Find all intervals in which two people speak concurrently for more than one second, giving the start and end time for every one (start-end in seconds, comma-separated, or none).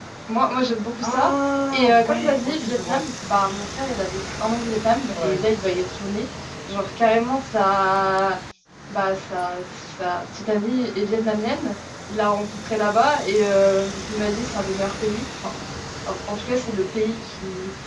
1.7-3.0